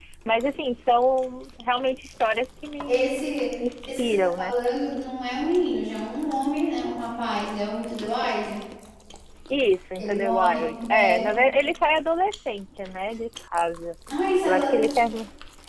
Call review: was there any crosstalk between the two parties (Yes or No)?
Yes